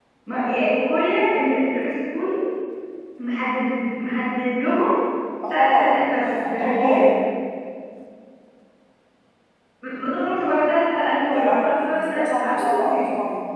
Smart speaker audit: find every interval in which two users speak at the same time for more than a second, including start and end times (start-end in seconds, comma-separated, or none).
5.5-7.0, 11.3-13.0